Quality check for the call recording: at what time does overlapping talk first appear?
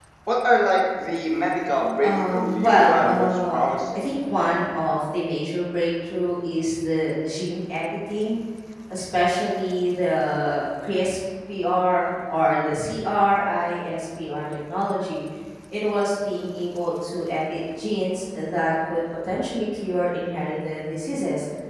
2.0 s

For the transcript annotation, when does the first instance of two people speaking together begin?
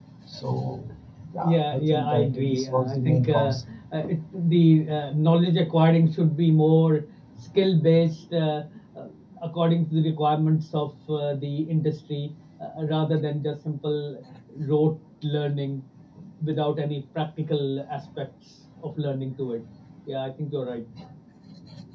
1.4 s

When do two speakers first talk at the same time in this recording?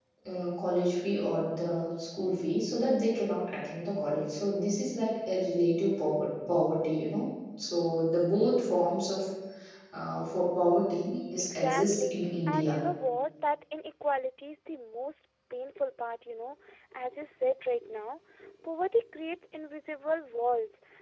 11.4 s

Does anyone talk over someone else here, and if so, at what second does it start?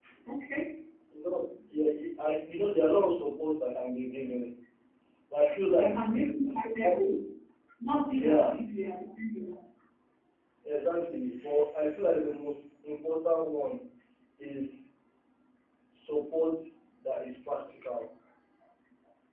5.7 s

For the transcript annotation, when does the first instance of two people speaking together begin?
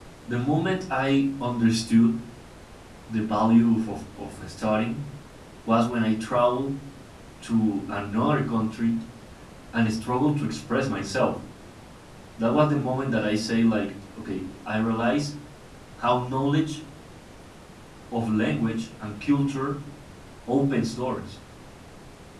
none

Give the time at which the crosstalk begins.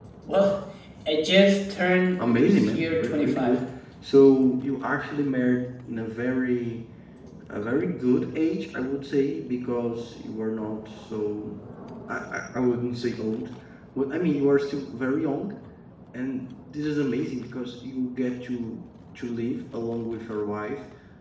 2.2 s

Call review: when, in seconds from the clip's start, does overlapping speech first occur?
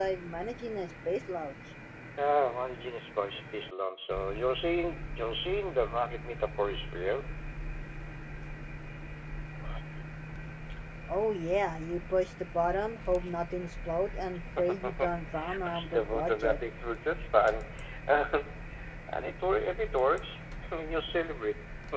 14.6 s

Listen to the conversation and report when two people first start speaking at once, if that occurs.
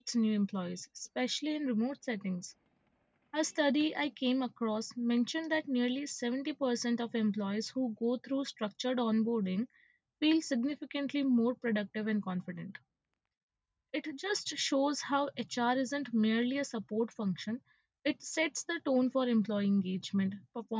none

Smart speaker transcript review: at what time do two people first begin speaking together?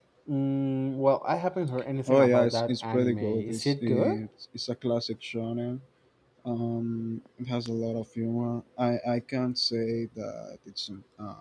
2.1 s

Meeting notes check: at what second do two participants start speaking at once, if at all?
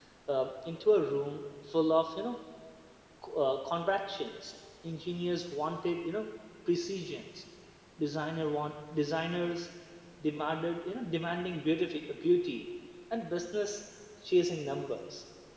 none

